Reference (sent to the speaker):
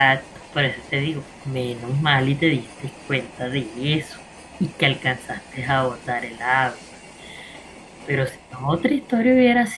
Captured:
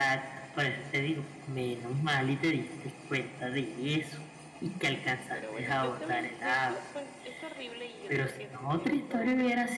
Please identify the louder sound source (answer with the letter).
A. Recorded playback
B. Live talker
A